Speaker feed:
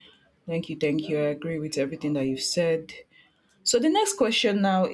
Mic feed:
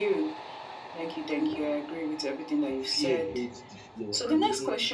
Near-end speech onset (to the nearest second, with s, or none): 3 s